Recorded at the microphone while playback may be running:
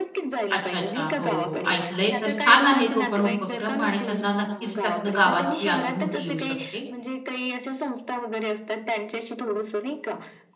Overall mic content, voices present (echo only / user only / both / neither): both